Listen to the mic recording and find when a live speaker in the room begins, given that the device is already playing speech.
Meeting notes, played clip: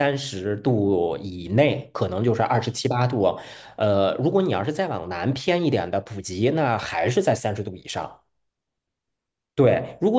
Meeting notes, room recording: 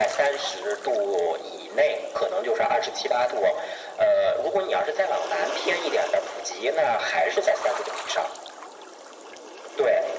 none

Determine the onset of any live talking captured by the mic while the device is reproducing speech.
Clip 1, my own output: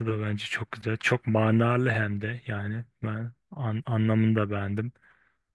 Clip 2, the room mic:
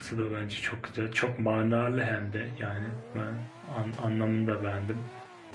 none

